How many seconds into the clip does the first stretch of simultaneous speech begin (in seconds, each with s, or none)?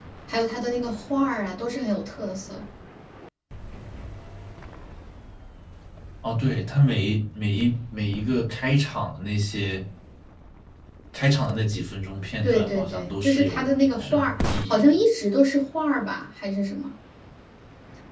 12.4 s